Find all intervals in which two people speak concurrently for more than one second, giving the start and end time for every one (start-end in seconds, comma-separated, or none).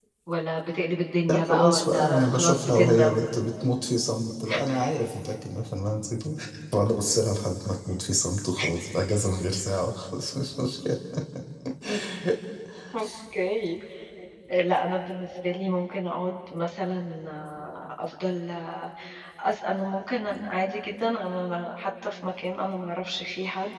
1.3-3.2